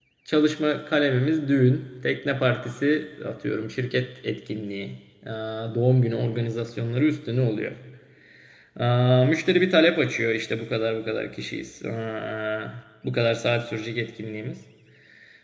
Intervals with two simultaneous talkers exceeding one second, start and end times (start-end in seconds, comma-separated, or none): none